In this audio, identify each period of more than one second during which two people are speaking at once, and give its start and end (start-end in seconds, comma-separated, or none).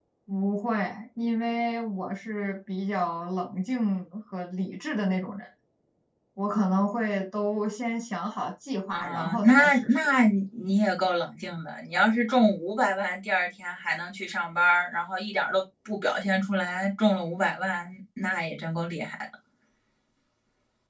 8.9-10.1